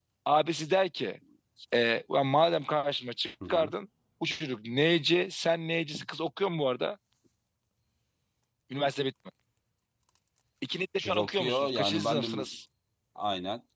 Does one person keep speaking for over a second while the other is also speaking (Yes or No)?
Yes